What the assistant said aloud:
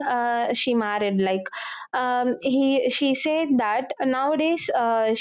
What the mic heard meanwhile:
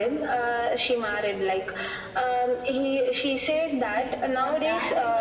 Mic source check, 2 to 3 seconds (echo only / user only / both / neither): echo only